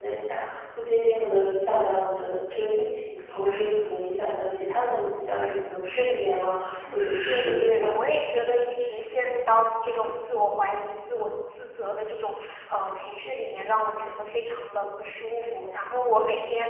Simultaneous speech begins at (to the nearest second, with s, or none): 7 s